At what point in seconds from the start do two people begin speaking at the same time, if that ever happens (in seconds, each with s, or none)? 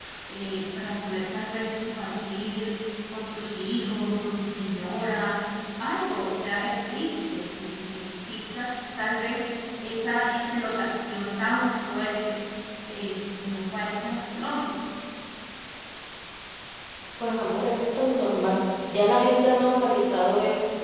none